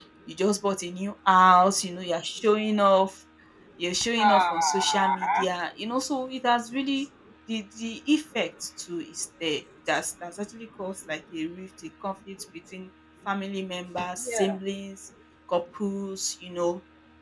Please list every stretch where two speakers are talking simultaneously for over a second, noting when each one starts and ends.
4.2-5.5

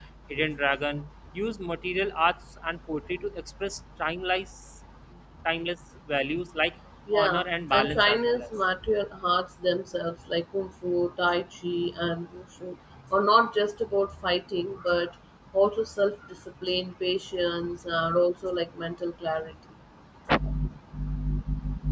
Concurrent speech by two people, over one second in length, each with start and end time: 7.1-8.5

